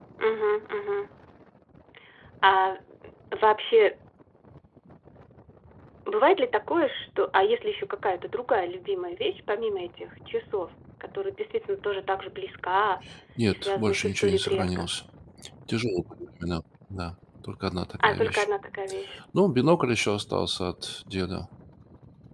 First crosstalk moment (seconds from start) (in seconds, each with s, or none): 13.5 s